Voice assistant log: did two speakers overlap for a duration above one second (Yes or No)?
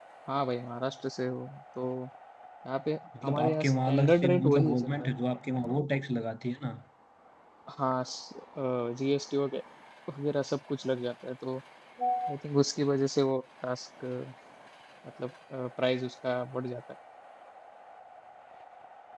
Yes